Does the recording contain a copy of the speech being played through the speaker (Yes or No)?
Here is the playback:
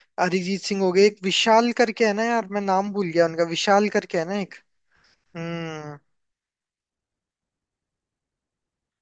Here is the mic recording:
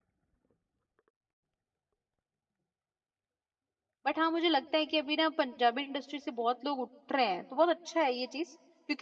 No